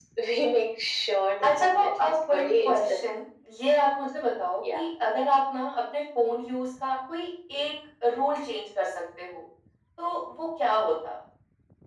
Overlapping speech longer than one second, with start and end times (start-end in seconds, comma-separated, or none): 1.4-3.1